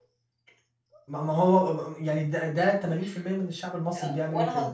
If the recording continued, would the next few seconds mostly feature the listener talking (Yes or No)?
Yes